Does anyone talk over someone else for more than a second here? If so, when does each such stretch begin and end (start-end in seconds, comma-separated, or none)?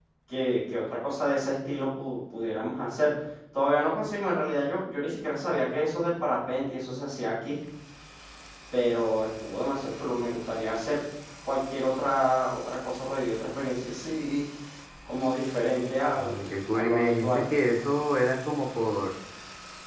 16.1-17.4